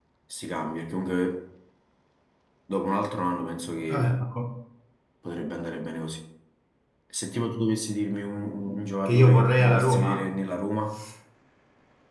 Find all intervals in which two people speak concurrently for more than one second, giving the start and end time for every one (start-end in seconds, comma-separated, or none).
9.1-10.3